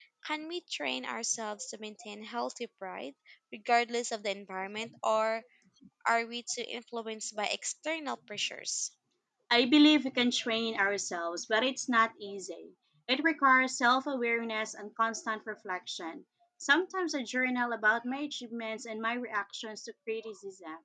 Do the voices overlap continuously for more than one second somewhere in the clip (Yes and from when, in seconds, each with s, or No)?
No